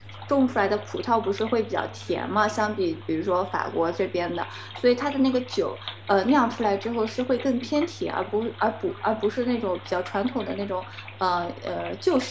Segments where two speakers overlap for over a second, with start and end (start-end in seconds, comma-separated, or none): none